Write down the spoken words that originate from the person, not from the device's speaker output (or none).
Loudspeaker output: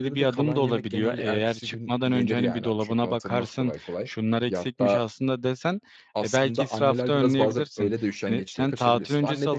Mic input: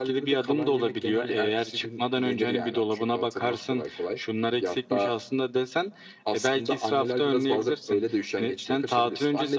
none